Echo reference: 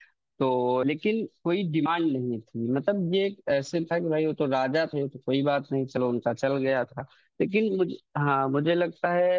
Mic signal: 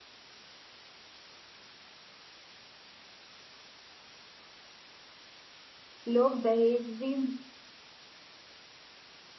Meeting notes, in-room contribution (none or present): present